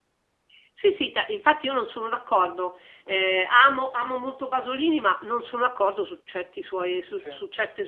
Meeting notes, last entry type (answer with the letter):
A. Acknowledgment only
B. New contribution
A